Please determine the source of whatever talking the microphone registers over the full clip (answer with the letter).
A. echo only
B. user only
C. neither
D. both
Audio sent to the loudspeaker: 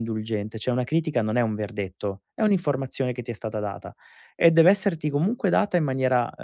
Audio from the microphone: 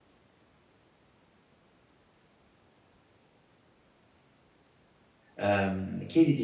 B